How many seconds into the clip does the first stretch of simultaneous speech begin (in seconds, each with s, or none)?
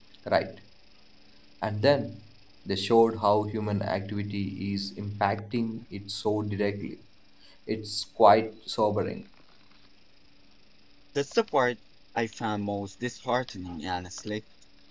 none